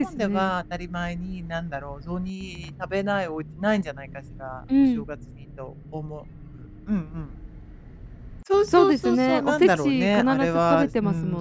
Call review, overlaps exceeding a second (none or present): present